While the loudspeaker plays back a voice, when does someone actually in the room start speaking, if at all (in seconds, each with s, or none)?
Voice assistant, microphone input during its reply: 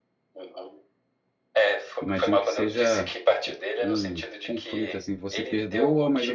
2.0 s